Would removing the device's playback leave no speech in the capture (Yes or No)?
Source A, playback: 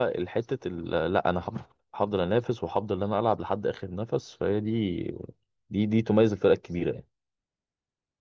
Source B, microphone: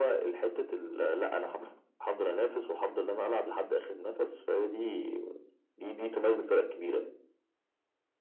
Yes